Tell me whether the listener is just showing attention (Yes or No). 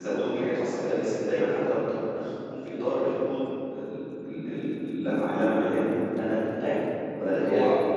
No